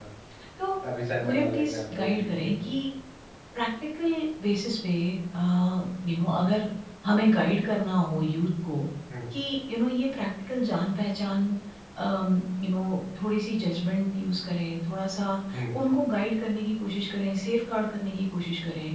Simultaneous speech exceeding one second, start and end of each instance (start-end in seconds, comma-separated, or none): 1.2-2.5